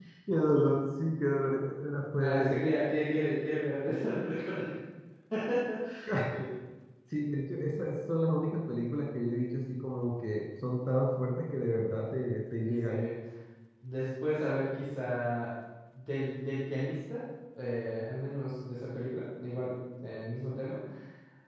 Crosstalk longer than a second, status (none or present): none